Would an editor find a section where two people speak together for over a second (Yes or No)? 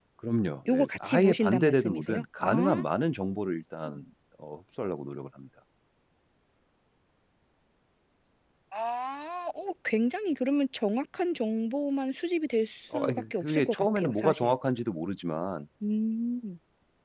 Yes